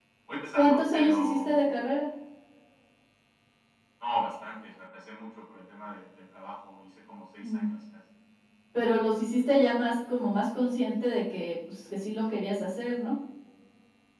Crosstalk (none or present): present